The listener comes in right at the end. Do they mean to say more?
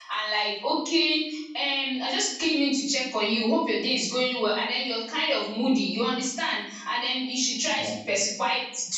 No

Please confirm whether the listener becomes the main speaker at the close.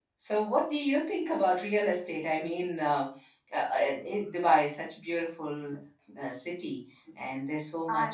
No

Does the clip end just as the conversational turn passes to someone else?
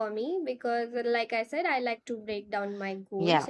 No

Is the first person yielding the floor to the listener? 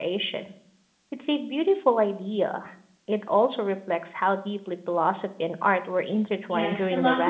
Yes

